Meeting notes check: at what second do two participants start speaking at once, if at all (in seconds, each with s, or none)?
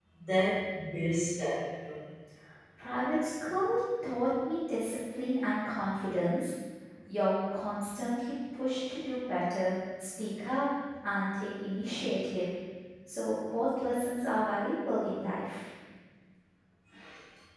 none